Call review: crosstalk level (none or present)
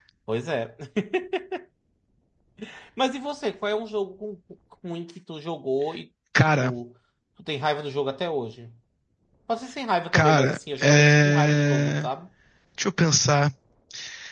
present